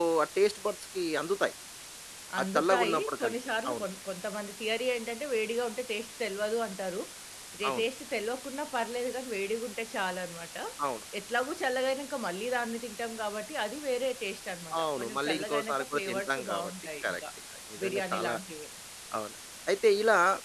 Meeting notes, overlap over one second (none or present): present